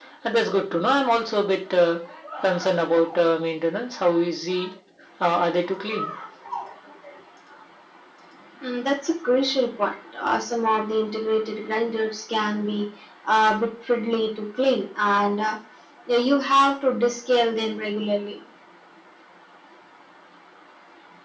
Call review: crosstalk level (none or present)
none